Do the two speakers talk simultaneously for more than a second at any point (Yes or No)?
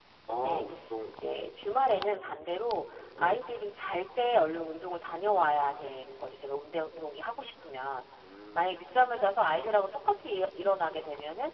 No